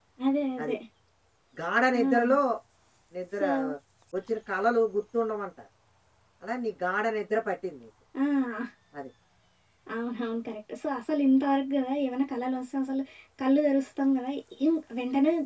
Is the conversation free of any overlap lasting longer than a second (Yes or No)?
Yes